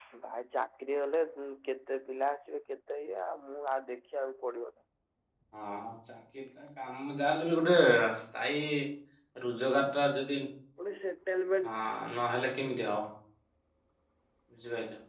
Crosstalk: none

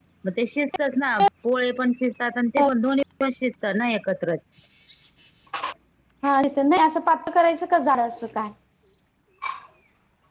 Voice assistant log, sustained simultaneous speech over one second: none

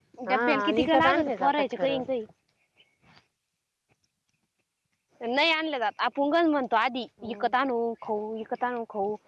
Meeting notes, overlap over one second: present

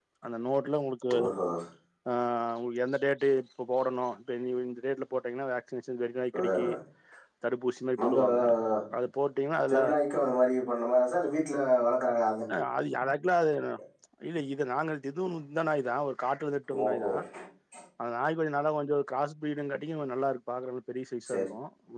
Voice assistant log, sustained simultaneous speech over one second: none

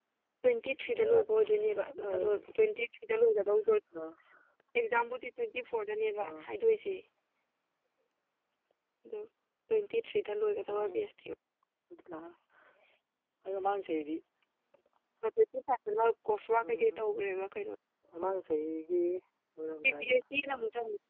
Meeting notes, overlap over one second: present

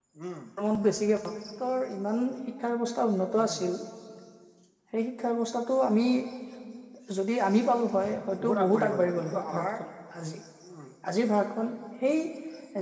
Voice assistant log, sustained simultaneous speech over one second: present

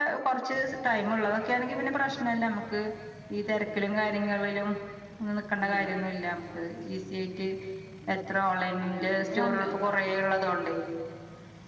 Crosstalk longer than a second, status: present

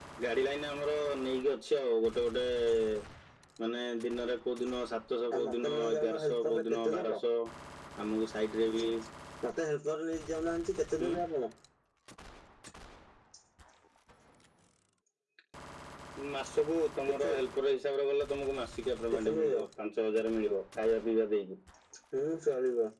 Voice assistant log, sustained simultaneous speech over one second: present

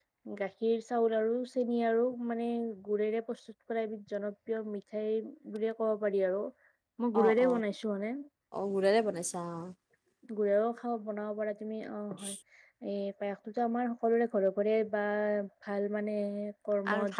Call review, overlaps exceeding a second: none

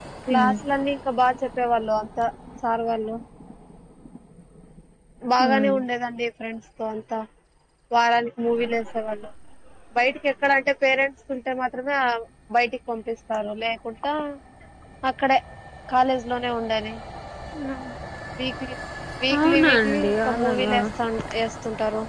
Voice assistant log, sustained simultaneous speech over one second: present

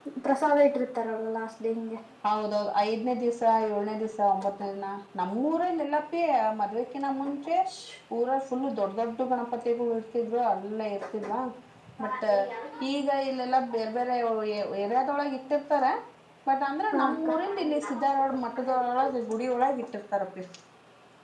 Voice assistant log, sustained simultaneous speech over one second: present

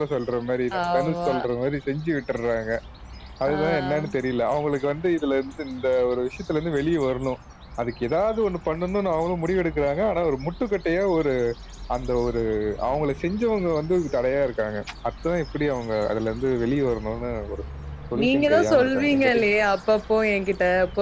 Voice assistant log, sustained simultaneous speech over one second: present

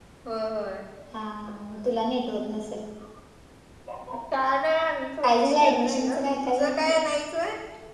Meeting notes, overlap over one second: present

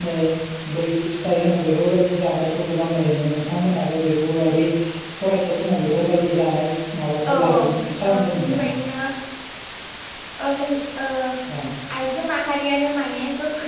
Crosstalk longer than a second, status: present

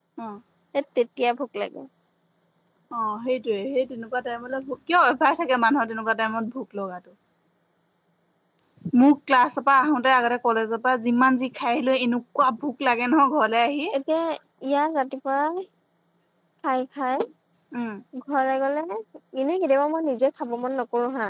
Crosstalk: none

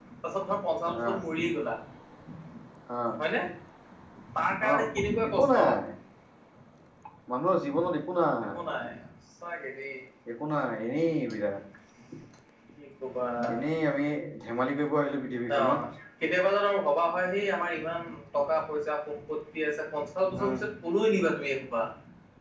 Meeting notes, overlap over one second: none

